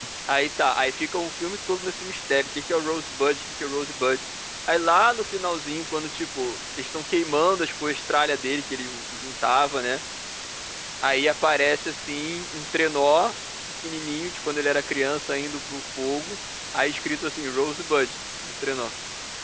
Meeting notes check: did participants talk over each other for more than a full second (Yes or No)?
No